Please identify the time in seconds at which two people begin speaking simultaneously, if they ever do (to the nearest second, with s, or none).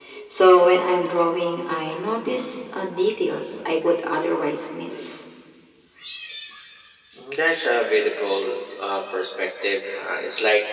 none